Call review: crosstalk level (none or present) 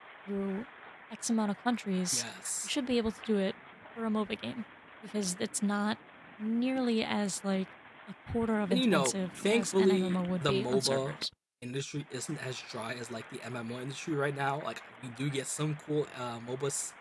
present